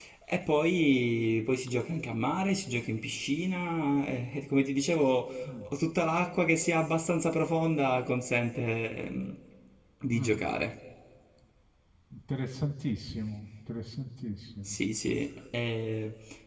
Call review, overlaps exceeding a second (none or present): none